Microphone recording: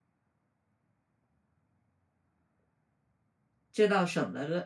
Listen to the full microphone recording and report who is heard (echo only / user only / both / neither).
user only